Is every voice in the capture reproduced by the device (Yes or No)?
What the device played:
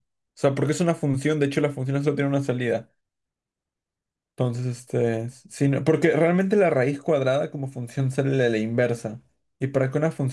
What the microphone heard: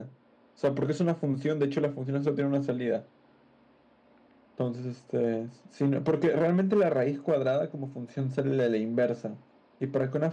Yes